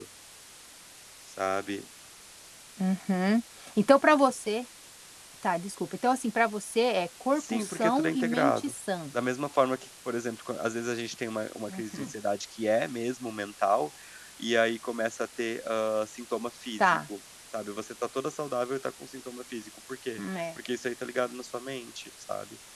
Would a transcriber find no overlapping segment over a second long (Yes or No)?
No